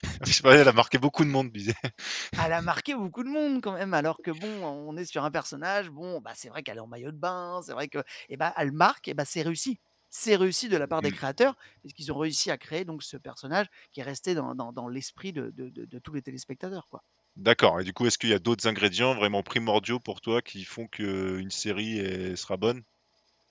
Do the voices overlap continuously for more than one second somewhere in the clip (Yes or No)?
No